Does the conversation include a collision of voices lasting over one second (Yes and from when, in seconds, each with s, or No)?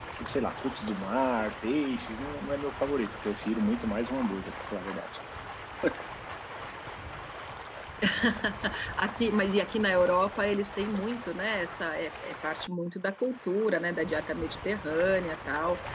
No